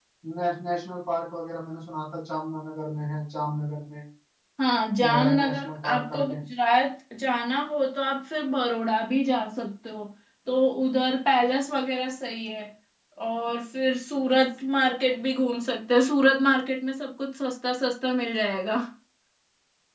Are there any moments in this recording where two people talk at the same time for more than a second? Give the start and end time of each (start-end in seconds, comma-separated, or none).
5.1-6.3